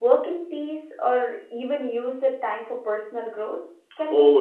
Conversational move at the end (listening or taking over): taking over